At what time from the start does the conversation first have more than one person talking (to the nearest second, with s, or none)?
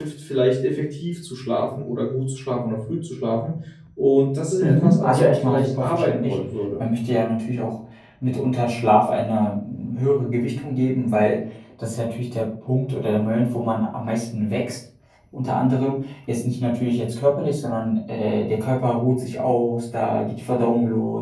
5 s